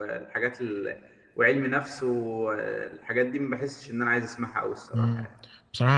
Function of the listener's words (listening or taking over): taking over